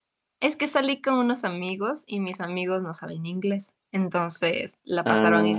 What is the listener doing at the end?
listening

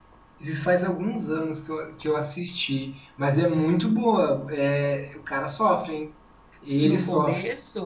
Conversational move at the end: taking over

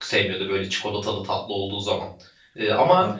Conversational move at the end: listening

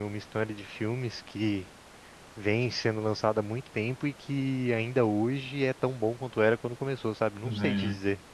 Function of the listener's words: taking over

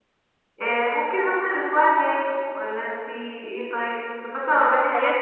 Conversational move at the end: listening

